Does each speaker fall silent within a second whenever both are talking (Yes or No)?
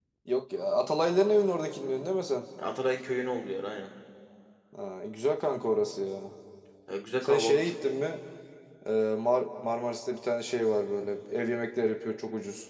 Yes